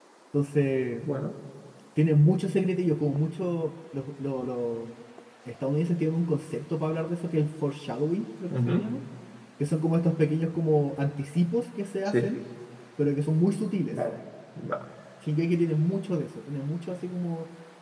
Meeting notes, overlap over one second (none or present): none